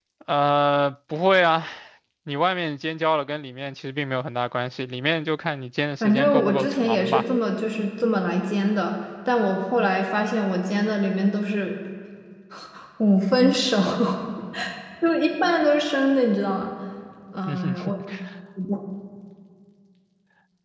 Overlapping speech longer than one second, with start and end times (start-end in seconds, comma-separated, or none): 6.0-7.2